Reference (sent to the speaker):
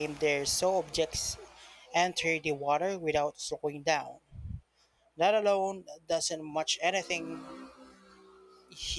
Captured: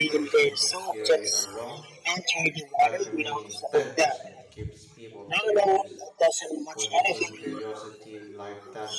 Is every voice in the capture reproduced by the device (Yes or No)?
No